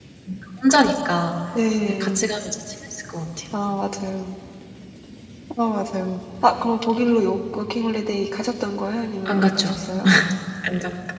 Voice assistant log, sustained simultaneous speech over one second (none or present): none